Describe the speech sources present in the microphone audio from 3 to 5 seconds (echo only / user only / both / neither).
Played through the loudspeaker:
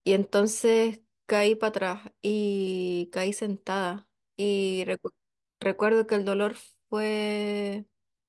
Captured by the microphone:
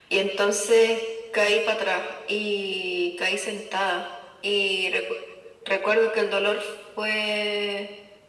echo only